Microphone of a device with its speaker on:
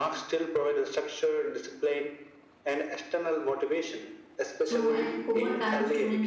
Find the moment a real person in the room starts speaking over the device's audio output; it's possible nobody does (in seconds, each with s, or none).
4.6 s